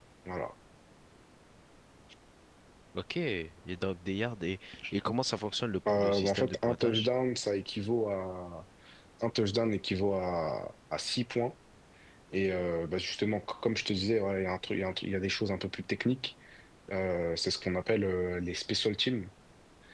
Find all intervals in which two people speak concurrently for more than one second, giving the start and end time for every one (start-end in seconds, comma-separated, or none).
5.9-7.1